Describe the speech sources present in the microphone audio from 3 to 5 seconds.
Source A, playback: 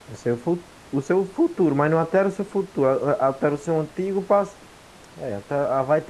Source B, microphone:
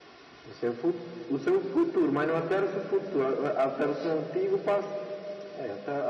echo only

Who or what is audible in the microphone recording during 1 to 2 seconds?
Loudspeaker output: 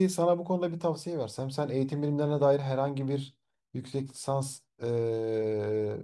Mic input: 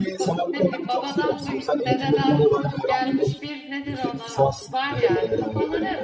both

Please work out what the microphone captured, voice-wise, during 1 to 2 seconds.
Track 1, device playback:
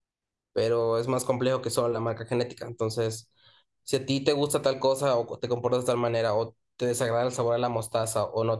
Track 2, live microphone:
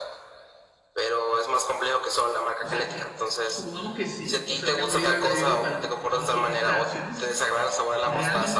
echo only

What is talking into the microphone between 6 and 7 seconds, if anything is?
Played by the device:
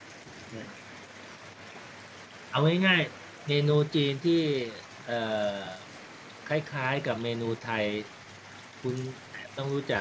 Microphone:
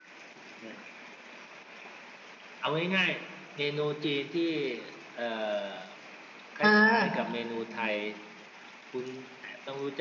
both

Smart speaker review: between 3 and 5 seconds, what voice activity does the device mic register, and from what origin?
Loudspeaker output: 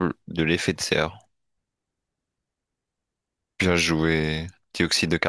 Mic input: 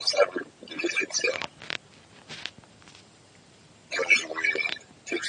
echo only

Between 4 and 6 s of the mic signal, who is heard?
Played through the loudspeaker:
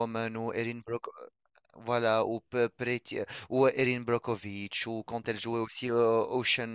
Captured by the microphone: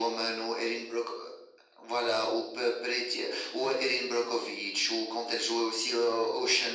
echo only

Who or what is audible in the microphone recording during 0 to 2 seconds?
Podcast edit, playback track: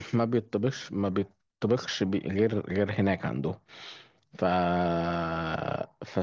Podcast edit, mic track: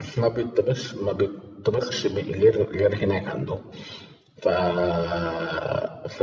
echo only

